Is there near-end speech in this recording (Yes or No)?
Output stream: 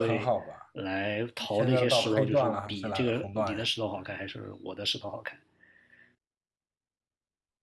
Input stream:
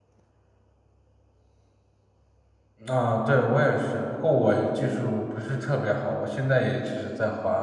Yes